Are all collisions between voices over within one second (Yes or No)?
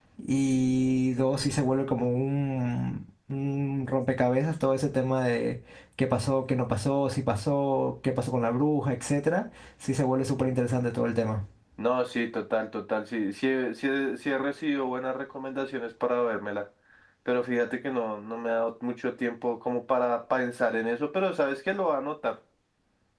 Yes